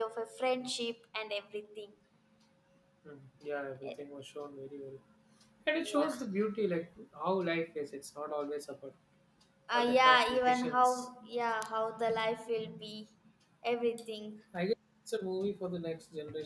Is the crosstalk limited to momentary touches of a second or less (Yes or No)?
No